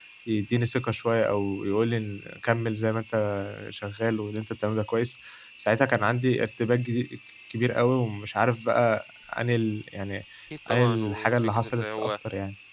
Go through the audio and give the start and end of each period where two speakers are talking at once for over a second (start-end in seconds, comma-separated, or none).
10.7-12.2